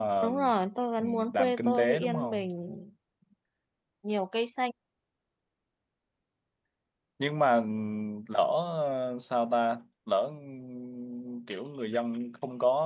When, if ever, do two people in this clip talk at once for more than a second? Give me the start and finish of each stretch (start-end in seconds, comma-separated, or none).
1.0-2.5